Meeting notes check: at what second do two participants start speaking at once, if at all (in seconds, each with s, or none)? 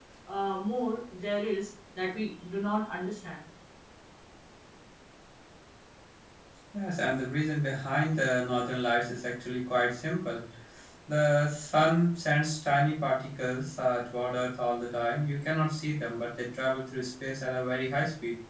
none